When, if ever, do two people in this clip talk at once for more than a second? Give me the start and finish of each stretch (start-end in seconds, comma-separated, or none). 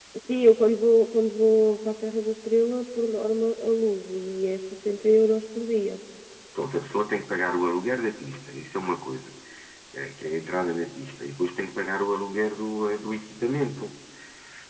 none